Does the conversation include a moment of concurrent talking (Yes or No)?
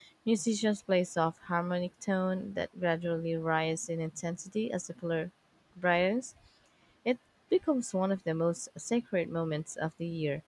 No